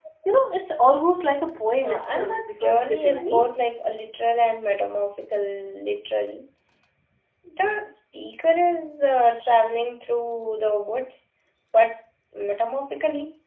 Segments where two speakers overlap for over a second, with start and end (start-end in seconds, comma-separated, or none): 1.8-3.5